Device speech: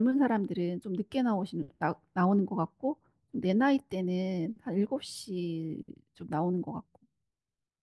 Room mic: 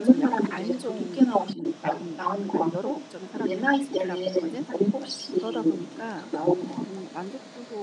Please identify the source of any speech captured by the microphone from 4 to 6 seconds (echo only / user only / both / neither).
both